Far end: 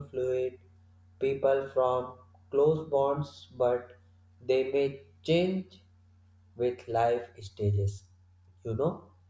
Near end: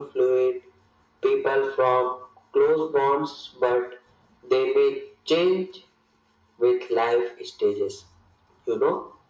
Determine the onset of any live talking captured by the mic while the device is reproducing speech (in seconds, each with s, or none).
none